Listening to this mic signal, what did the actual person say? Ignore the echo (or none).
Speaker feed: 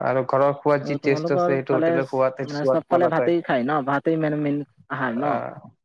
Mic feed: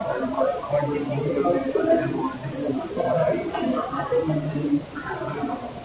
none